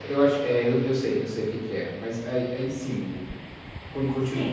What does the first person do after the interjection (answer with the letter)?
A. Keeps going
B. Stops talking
B